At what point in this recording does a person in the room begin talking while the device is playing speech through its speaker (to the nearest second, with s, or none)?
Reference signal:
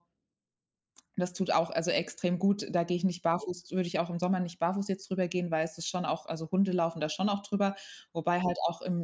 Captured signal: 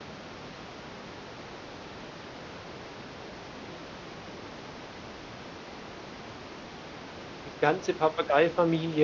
7 s